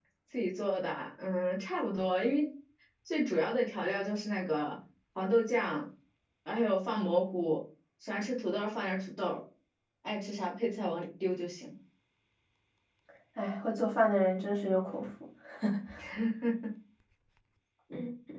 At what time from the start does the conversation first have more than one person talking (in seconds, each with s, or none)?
none